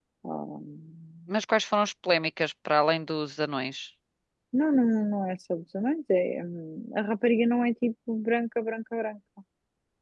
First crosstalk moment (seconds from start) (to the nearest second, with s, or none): none